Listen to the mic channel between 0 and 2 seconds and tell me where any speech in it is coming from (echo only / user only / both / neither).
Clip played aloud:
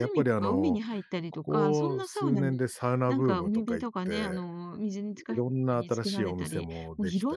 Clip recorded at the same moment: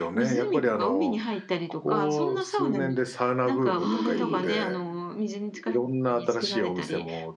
echo only